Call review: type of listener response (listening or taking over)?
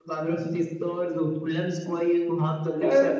listening